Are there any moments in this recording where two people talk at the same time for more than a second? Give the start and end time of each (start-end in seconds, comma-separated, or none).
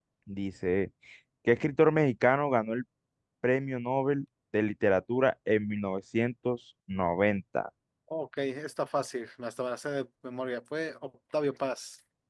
none